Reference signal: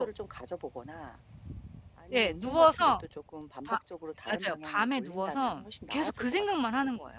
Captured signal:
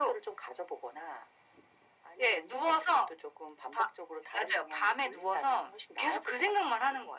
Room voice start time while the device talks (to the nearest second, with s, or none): none